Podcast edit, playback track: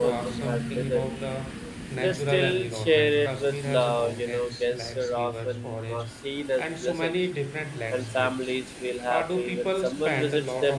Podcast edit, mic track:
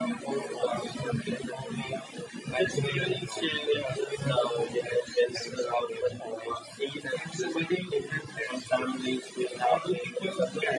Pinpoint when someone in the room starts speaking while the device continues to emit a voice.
none

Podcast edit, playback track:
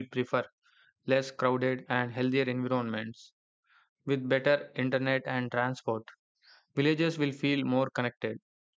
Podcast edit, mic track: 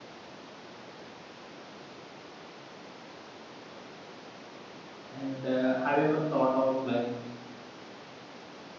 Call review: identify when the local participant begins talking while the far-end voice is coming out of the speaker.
5 s

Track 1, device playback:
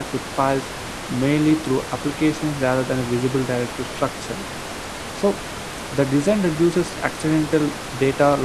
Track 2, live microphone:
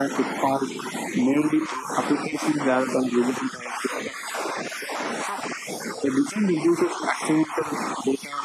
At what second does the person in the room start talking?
none

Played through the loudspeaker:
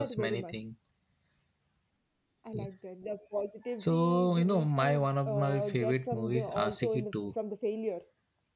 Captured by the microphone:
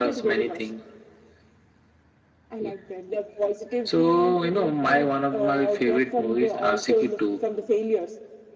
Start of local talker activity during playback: none

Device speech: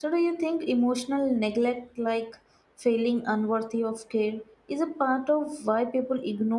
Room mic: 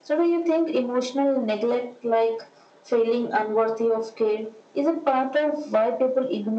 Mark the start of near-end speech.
none

